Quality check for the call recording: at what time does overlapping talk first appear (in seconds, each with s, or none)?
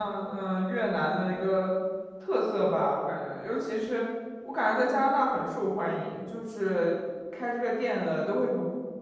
none